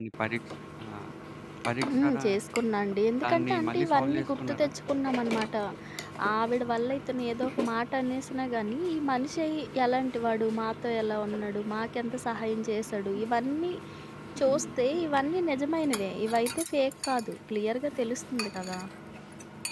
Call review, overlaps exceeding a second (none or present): present